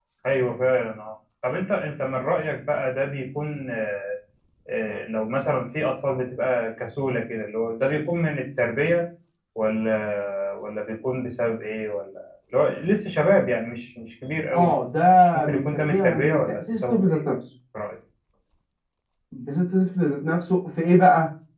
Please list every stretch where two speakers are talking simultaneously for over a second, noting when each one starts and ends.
15.4-17.2

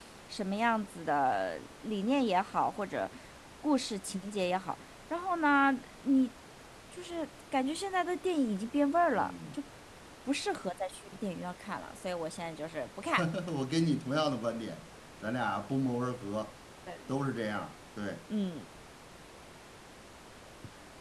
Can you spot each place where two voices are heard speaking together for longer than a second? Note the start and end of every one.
none

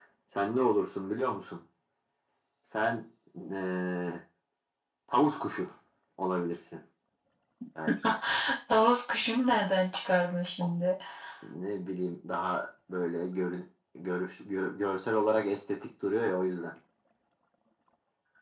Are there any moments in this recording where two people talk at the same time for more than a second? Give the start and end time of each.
none

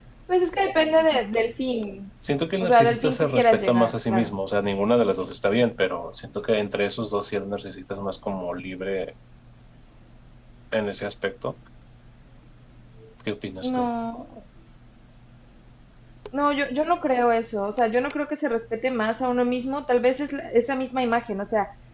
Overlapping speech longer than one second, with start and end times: 2.6-4.3

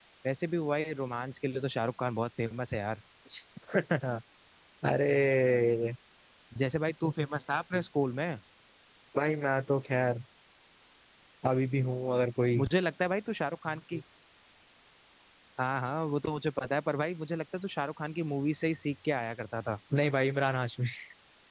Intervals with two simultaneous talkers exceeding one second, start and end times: none

